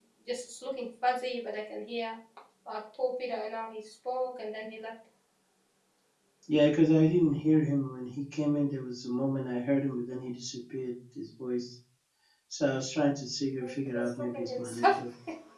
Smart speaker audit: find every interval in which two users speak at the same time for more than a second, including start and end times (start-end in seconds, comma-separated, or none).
13.6-15.0